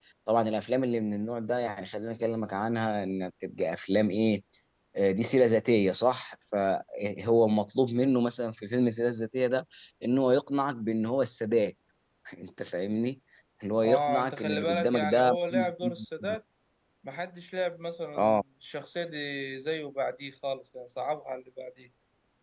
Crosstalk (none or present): present